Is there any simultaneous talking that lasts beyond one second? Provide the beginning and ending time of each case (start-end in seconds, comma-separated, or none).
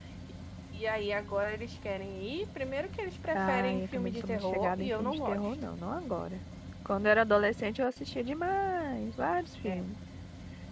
3.3-5.5